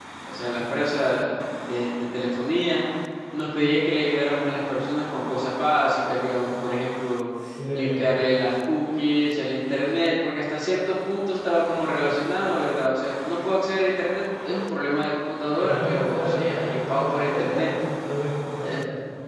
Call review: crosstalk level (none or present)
present